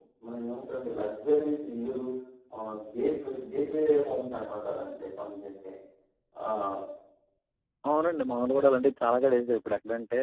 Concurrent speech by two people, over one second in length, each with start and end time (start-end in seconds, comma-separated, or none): none